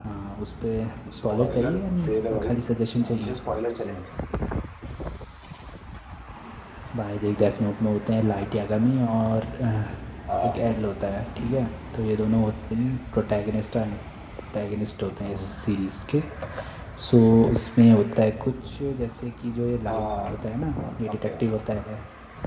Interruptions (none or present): present